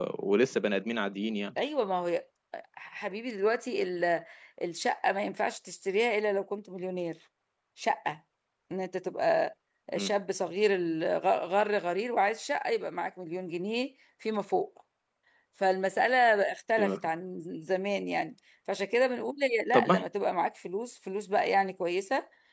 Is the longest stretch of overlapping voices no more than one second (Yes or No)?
Yes